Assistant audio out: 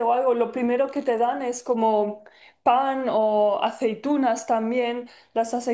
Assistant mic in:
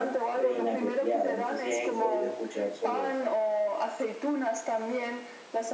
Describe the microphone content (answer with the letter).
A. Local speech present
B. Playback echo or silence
A